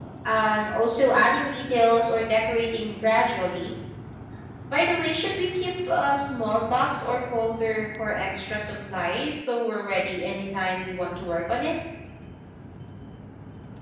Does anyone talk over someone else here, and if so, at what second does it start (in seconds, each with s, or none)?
none